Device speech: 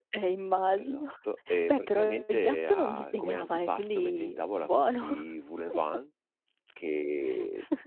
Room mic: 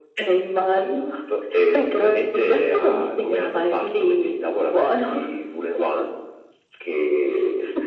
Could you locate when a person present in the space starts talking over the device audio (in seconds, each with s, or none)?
none